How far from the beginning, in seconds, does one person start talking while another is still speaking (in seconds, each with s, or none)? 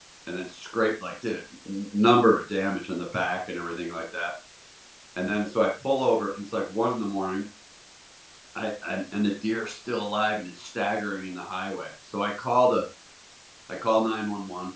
none